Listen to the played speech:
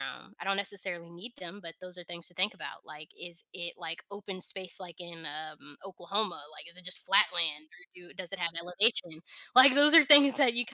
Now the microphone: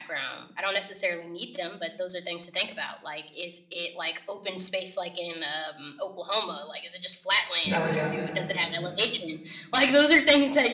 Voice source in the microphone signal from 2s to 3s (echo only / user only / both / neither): echo only